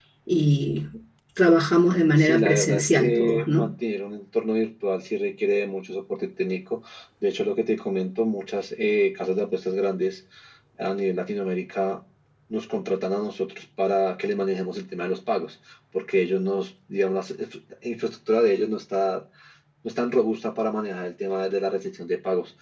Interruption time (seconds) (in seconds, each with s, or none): 2.2 s